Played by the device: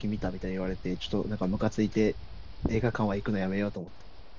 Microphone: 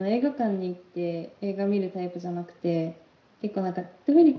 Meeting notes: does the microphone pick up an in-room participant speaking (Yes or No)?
Yes